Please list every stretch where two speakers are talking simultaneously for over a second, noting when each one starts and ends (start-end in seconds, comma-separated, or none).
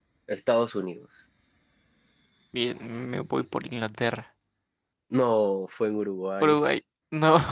none